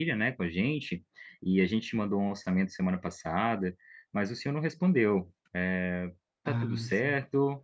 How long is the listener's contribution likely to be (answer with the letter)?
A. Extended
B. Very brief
B